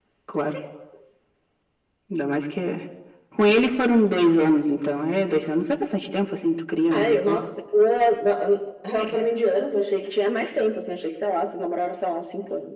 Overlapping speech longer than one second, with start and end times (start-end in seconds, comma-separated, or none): none